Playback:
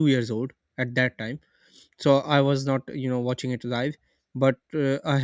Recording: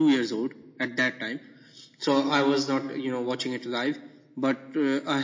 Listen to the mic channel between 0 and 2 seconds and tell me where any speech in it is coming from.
echo only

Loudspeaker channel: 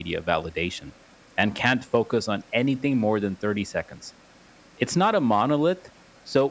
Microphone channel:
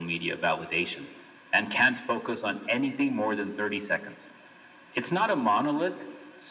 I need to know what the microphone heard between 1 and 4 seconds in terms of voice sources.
echo only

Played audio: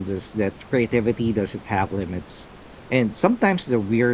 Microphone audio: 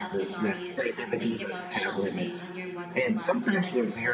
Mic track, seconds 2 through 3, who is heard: both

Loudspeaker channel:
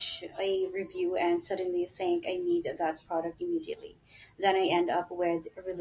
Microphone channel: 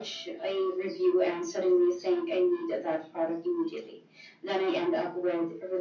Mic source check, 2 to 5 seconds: echo only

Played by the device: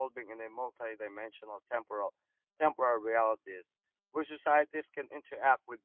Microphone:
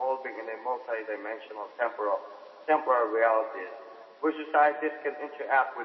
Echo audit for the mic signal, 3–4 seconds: echo only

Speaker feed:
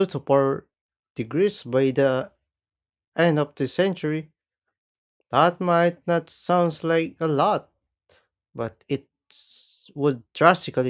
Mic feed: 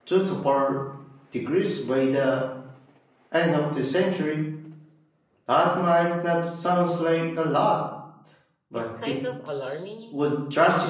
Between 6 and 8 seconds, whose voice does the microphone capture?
echo only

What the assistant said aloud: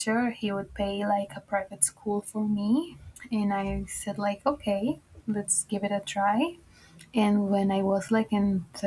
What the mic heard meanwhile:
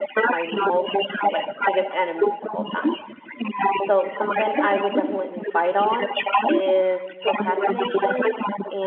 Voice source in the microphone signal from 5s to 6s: both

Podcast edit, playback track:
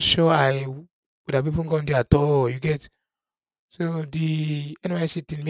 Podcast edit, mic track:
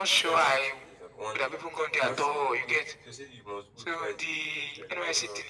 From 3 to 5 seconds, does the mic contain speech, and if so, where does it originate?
both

